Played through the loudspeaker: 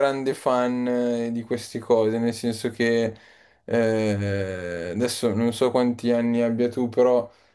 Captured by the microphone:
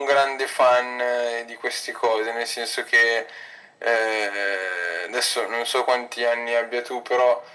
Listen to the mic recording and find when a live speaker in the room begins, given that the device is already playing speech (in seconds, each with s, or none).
none